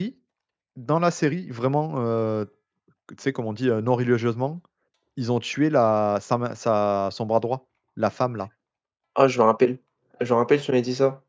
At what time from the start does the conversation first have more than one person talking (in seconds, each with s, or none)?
none